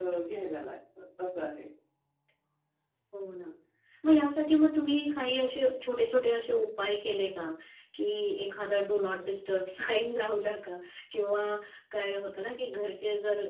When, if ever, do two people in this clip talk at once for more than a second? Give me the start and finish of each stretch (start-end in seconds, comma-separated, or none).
none